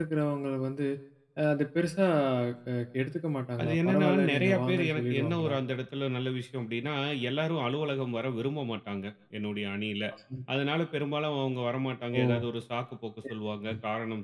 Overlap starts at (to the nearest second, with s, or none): 4 s